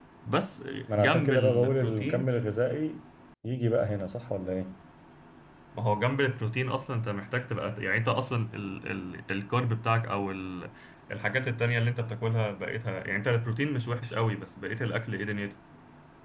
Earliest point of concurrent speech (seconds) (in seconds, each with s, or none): 0.9 s